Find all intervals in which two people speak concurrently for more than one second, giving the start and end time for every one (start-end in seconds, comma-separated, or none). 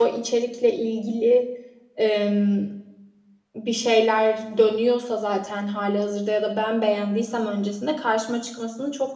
none